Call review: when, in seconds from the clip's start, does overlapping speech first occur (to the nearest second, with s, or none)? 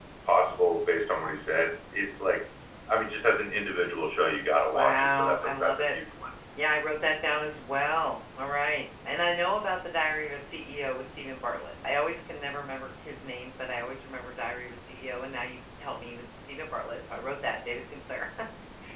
5 s